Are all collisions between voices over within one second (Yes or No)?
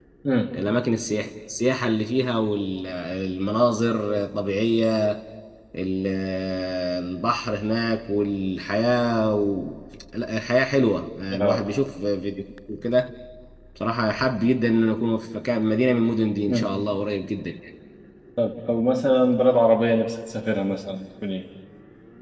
Yes